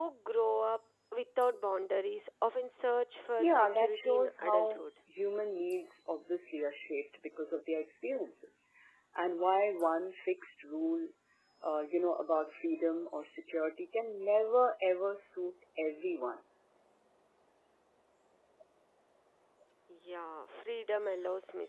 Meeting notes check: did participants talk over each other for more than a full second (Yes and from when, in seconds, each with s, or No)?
Yes, from 3.4 s